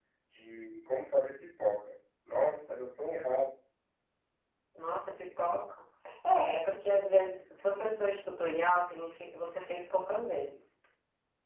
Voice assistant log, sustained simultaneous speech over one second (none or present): none